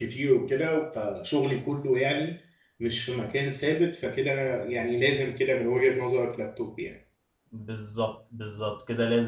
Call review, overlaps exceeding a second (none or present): none